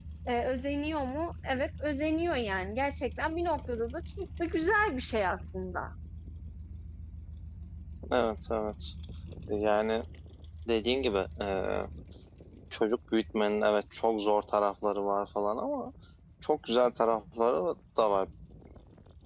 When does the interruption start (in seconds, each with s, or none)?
none